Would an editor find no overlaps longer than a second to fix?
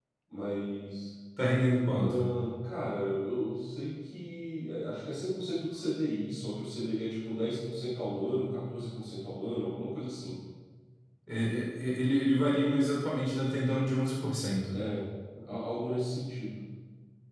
Yes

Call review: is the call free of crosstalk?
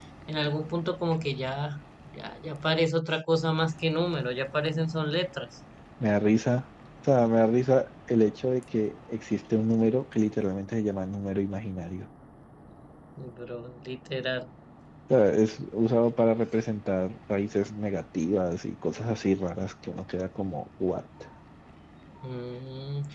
Yes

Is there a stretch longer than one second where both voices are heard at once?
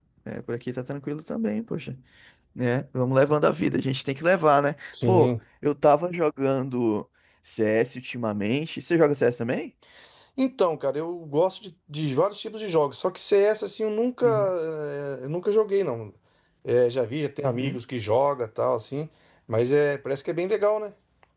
No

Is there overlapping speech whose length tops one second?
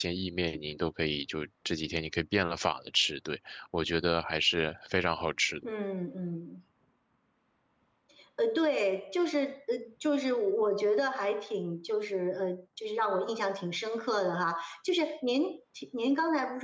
No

